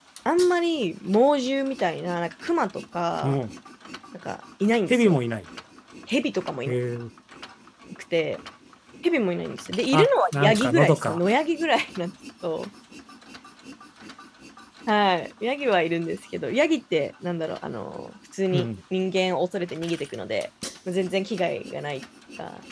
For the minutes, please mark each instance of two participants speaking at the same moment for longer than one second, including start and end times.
9.9-11.2

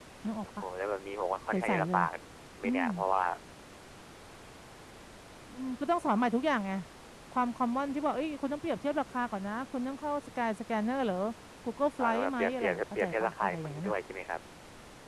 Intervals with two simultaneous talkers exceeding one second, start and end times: 12.0-13.9

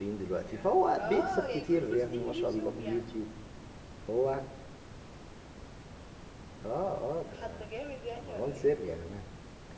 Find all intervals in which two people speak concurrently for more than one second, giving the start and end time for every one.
1.0-3.0

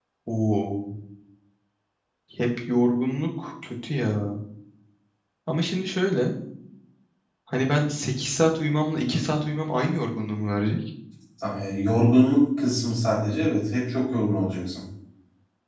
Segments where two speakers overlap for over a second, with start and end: none

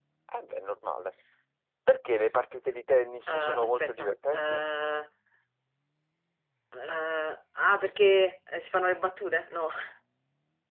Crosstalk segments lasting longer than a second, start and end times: 3.3-4.7

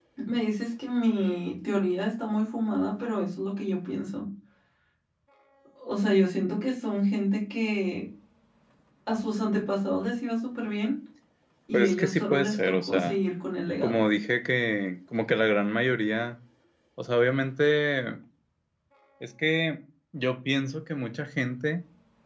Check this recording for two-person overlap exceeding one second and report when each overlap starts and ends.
11.7-13.2

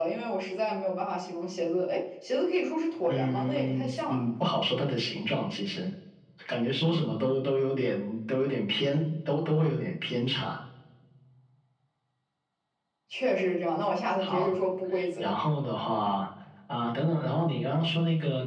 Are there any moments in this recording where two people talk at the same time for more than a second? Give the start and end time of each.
3.1-4.3

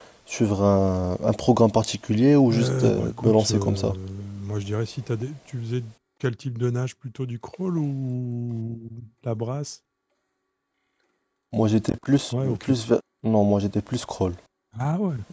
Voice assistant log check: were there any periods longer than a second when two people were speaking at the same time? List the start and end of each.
2.5-3.9

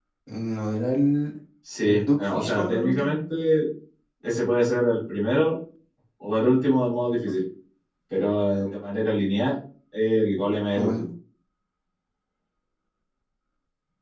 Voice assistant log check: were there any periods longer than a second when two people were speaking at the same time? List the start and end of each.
1.9-3.2

